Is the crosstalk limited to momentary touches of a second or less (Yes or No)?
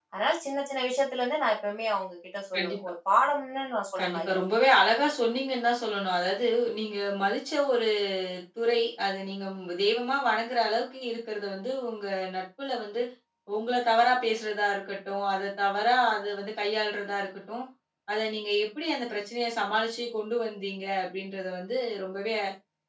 Yes